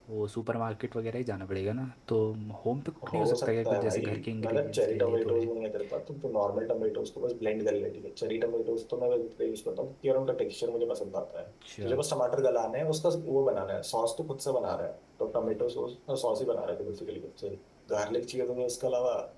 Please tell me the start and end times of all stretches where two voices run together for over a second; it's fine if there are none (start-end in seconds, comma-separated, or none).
3.1-5.5